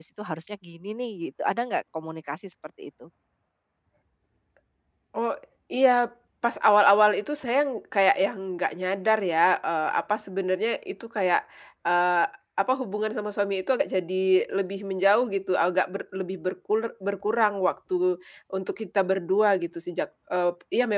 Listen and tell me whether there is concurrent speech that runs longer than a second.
No

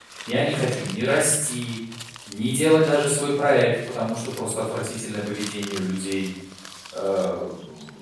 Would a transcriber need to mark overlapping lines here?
No

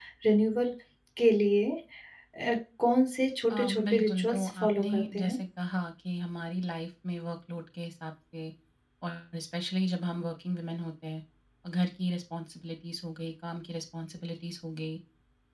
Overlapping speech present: Yes, from 3.5 s

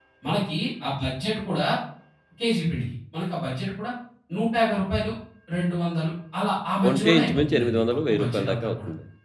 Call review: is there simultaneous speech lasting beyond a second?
Yes, from 6.8 s

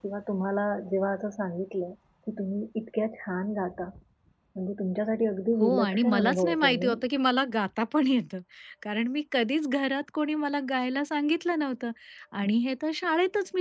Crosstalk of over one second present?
Yes, from 5.6 s

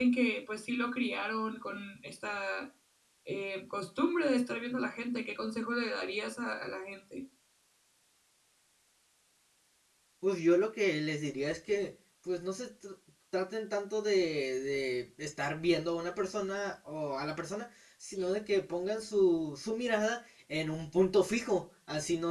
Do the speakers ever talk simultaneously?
No

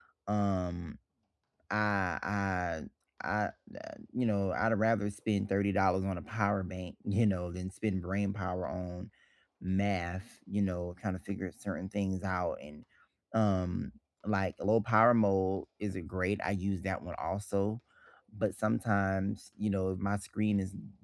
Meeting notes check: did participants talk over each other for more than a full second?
No

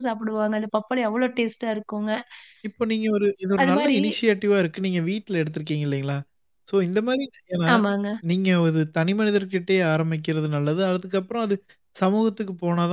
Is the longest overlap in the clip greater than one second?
No

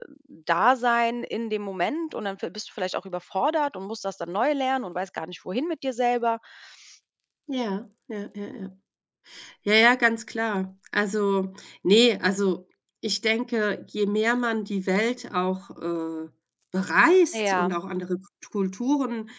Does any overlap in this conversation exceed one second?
No

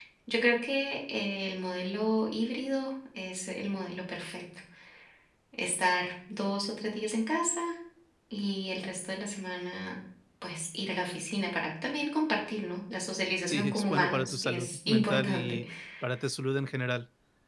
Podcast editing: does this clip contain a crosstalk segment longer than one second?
Yes, from 13.5 s

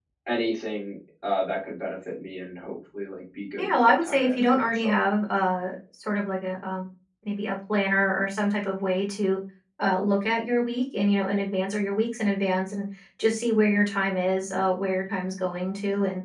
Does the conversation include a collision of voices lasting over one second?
Yes, from 3.6 s

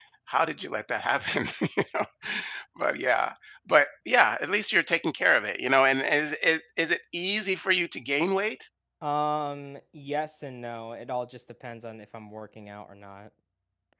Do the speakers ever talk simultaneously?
No

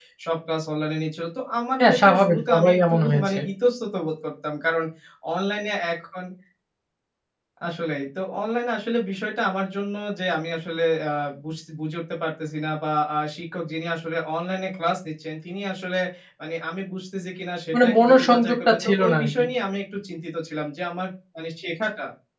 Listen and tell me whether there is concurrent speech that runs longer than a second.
Yes, from 1.8 s

